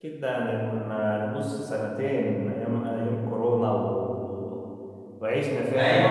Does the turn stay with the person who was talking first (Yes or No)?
Yes